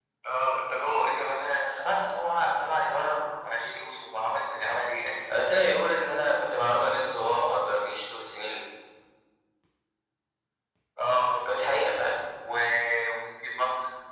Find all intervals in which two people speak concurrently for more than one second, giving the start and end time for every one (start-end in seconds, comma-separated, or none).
none